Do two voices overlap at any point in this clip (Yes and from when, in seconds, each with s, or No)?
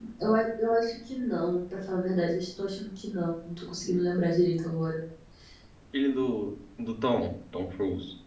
No